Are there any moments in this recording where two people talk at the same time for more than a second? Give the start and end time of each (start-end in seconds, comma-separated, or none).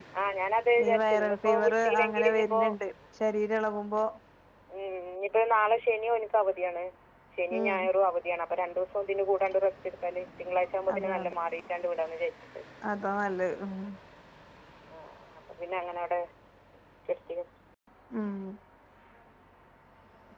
0.8-2.6